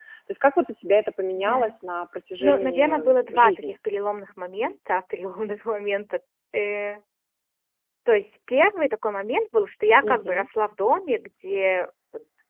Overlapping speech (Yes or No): Yes